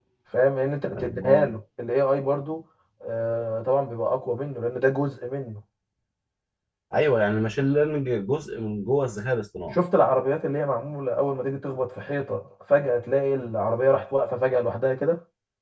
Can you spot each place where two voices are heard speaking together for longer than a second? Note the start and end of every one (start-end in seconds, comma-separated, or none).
none